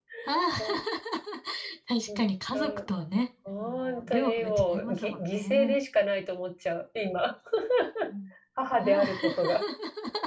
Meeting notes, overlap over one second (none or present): present